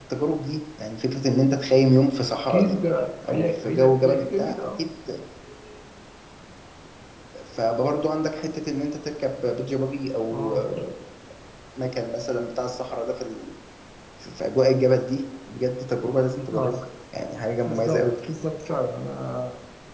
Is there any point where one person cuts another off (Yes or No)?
Yes